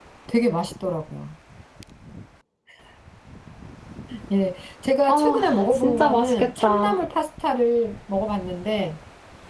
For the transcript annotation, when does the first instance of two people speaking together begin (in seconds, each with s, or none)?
5.1 s